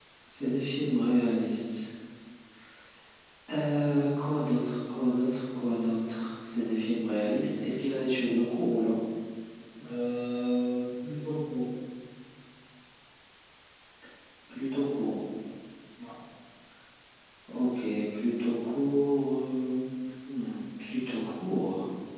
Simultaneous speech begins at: none

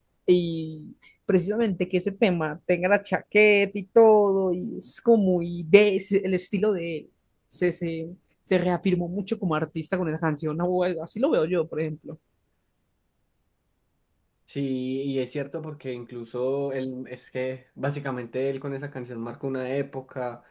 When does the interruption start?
none

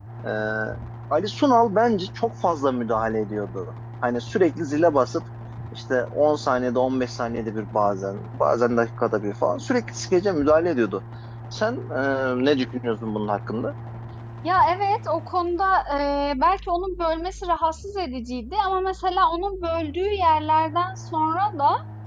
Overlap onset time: none

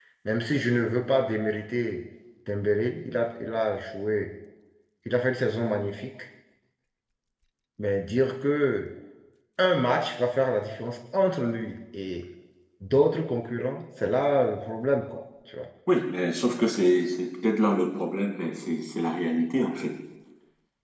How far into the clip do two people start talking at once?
none

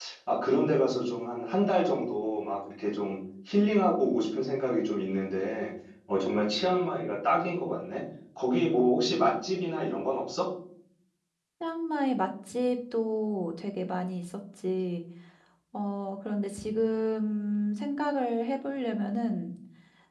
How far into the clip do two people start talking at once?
none

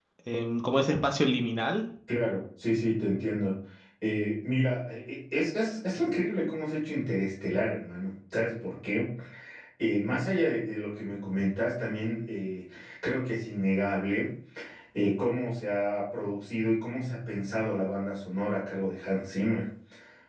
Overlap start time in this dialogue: none

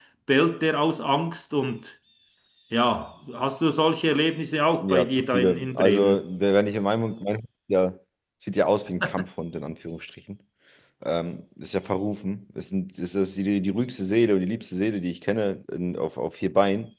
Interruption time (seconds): 4.8 s

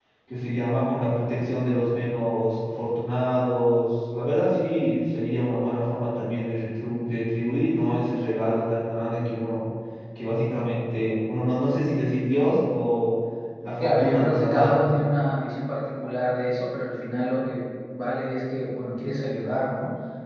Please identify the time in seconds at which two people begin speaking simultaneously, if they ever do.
13.8 s

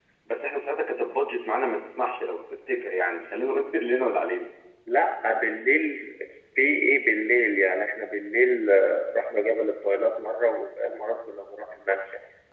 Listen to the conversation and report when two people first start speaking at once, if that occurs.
none

